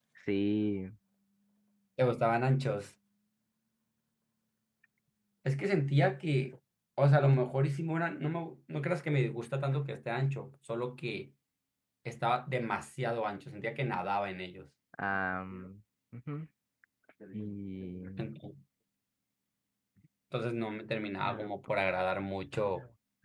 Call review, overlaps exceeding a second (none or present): none